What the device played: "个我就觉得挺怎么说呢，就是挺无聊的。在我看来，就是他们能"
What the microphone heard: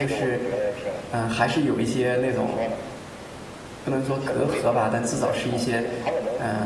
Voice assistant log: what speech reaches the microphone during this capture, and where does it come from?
both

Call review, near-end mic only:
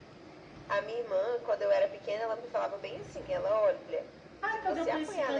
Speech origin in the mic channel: both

